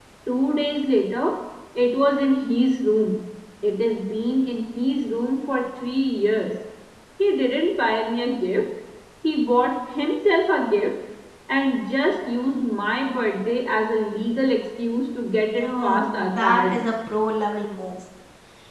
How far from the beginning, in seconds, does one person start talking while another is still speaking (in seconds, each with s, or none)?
15.6 s